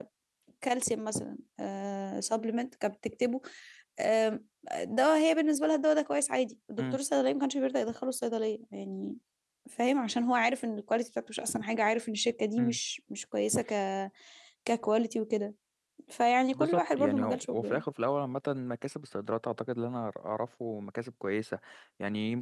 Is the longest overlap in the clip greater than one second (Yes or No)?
Yes